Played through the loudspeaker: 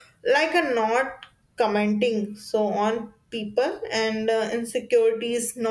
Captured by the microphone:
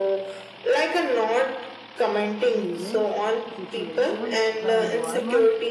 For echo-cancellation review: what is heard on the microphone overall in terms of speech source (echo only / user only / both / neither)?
both